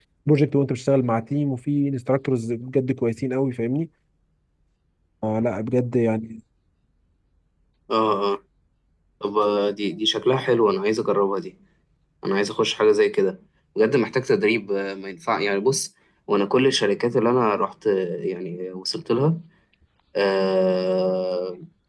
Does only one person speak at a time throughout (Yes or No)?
Yes